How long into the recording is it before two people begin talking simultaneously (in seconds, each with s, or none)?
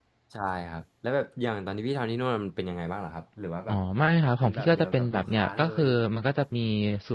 4.4 s